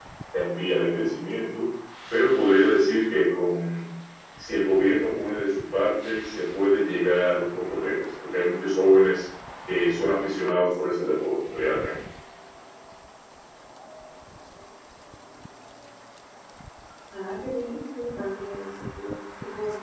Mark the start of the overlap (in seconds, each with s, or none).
none